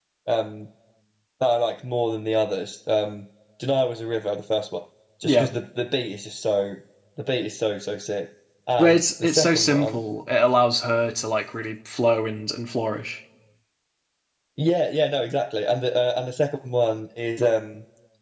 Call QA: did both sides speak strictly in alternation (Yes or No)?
No